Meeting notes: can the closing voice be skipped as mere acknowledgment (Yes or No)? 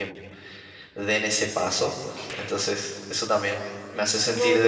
No